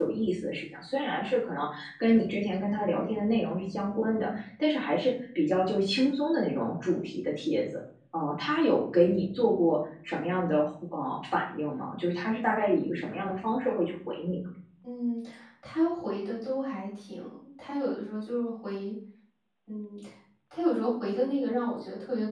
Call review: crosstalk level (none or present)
none